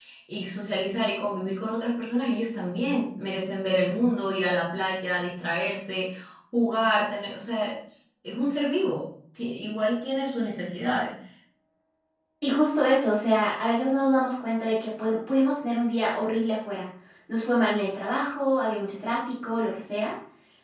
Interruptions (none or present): none